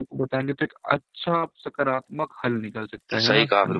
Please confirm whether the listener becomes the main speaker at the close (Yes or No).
Yes